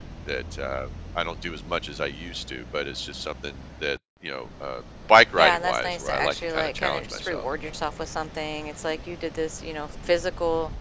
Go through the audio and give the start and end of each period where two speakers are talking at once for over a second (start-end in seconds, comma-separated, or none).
5.4-7.5